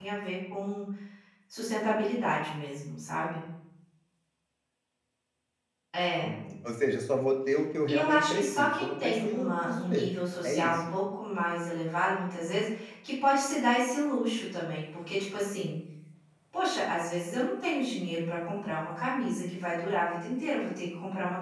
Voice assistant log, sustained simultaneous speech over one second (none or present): present